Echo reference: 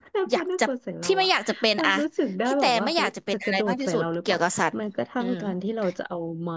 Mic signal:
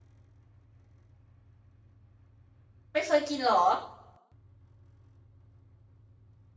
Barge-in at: 2.9 s

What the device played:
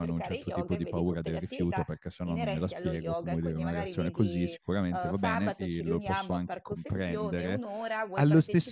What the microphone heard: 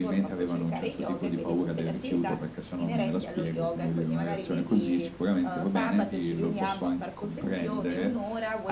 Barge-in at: none

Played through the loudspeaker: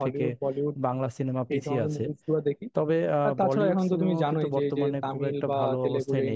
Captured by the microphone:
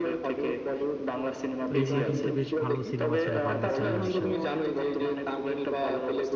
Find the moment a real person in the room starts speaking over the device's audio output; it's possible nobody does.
1.6 s

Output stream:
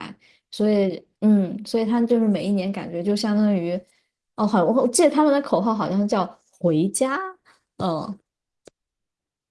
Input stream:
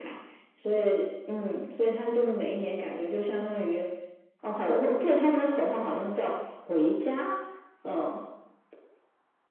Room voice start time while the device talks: none

